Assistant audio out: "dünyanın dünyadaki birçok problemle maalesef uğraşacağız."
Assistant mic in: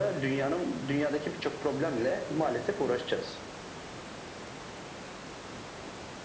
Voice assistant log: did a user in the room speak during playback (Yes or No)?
No